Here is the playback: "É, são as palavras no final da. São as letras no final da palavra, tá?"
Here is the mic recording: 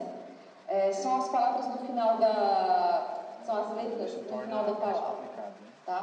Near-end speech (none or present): present